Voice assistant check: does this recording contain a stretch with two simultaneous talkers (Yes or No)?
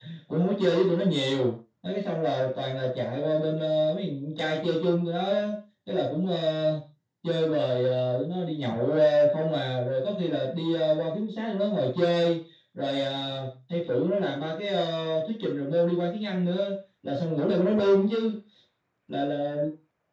No